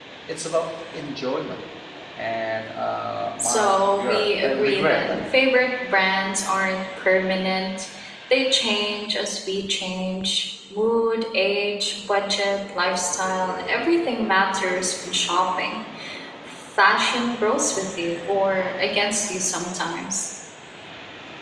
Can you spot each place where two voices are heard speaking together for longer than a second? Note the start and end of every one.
3.4-5.3

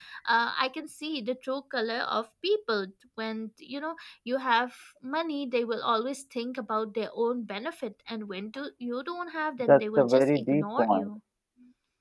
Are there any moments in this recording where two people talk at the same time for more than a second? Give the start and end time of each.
9.6-11.1

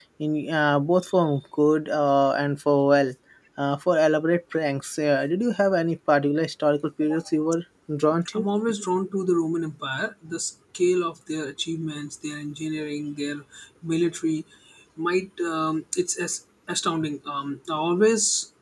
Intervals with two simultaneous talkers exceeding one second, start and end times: none

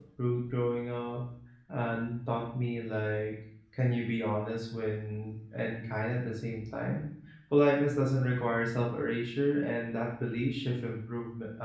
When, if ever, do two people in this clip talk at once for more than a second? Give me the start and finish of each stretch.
none

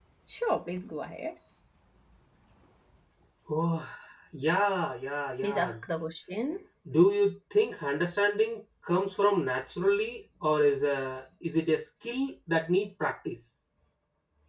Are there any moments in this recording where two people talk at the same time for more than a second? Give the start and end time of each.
none

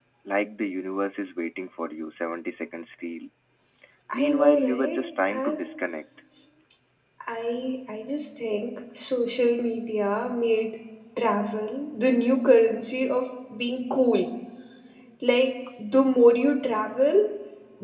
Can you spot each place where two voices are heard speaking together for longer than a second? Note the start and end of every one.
4.1-5.7

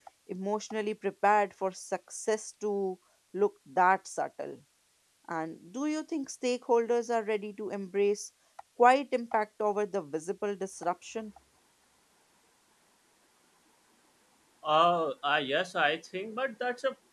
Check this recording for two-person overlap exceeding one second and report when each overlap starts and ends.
none

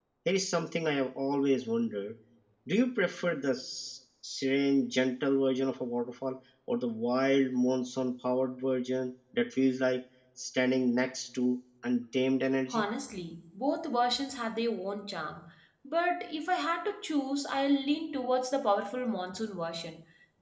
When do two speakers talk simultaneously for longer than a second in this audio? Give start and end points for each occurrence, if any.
none

